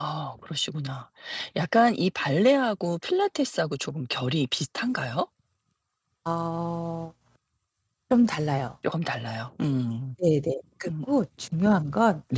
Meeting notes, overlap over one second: none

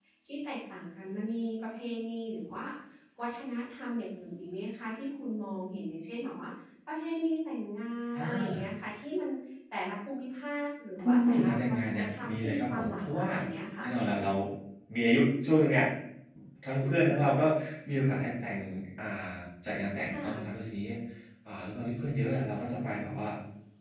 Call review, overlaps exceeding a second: present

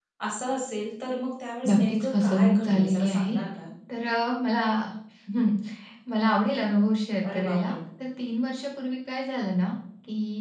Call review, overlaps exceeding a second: present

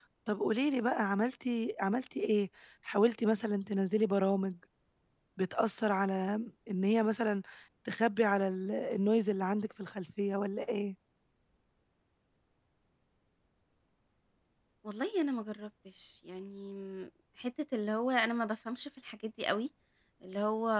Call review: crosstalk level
none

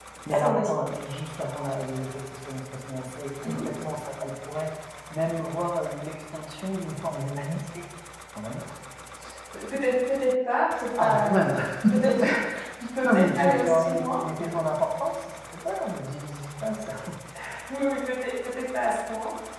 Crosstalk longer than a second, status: present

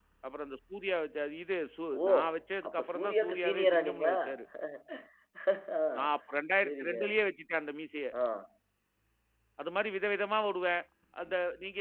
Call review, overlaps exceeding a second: present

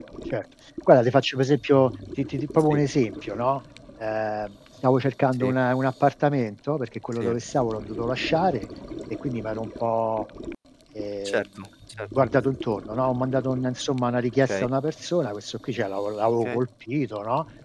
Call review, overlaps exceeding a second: none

